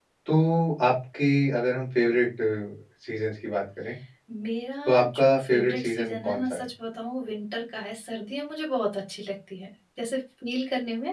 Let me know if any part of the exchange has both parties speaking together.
Yes, from 4.9 s

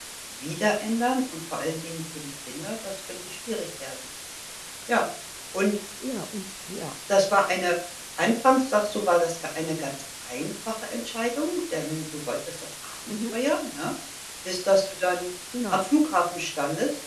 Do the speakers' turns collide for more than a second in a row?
No

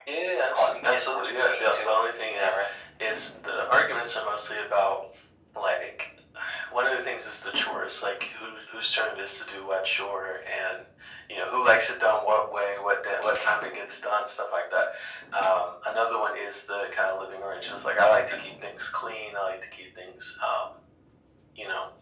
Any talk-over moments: Yes, from 0.5 s

